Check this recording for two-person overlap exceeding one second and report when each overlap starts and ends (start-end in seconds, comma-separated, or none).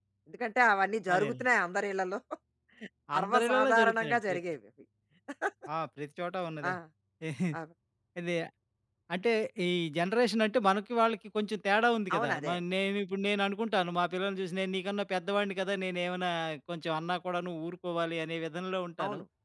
3.2-4.4